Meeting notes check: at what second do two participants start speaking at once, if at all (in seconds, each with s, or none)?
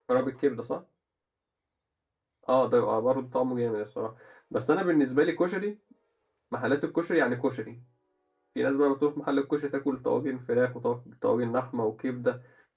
none